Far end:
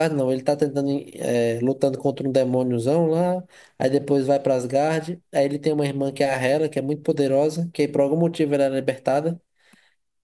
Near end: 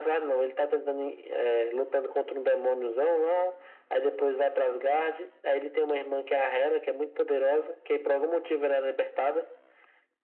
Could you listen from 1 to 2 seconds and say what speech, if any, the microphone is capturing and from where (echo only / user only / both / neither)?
echo only